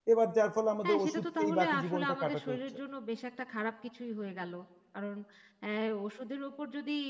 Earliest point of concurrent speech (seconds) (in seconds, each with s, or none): 0.8 s